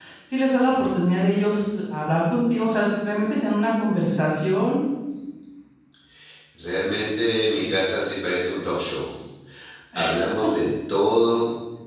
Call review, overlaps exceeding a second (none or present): none